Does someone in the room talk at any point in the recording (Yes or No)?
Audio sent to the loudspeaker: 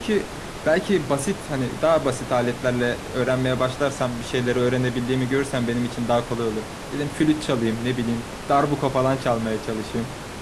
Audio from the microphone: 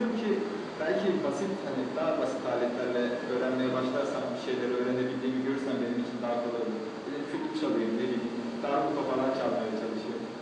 No